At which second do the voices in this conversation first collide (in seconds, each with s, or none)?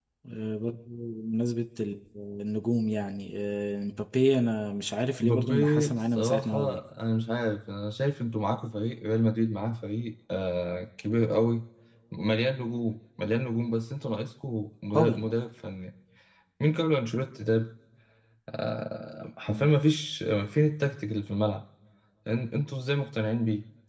5.2 s